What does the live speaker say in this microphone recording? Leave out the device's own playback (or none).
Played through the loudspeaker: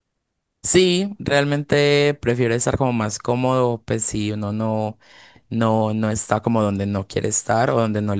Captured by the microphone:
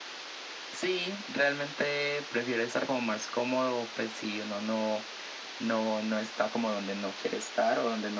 none